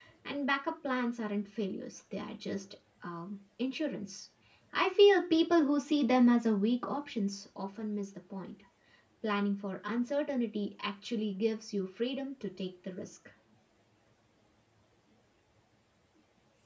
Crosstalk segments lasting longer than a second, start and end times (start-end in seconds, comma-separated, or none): none